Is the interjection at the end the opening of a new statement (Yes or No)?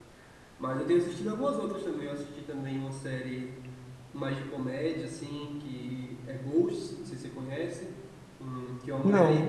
No